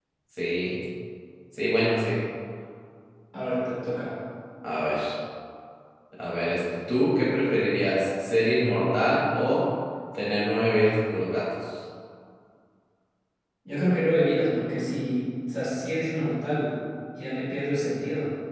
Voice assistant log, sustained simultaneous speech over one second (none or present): none